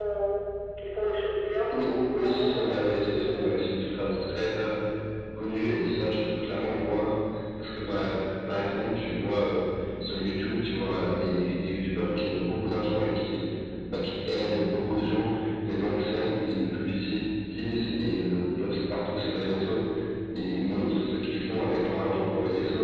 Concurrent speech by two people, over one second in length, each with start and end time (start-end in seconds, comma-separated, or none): 1.7-3.6